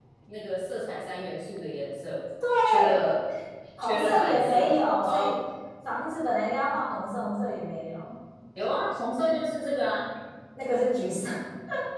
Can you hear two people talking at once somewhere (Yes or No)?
Yes